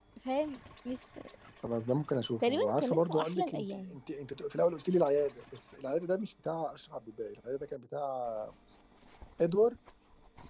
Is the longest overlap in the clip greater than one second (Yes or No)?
Yes